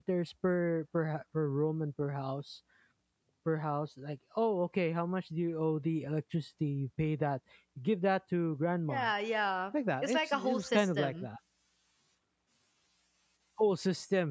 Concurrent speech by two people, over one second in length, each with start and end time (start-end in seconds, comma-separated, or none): 10.0-11.3